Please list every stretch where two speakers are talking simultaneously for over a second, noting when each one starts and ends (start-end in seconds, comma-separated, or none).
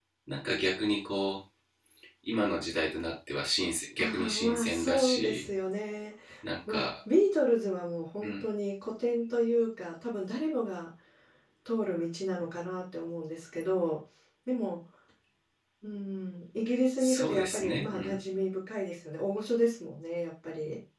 4.0-5.4, 17.0-18.2